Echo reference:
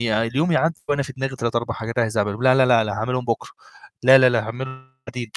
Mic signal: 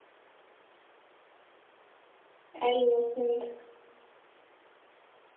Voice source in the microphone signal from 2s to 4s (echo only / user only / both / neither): user only